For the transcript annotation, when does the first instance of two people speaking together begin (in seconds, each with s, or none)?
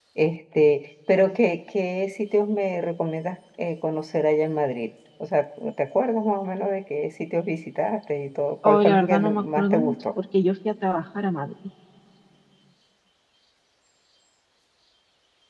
8.6 s